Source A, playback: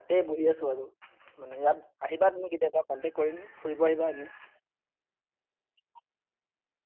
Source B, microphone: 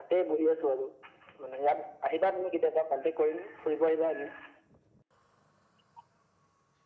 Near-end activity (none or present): none